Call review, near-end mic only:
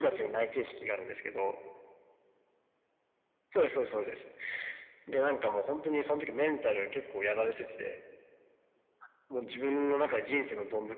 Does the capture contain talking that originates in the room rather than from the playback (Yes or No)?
No